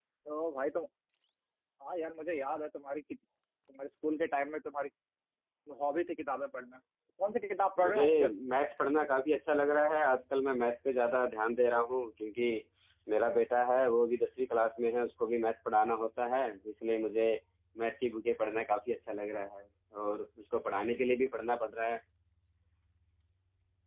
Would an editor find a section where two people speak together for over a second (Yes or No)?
No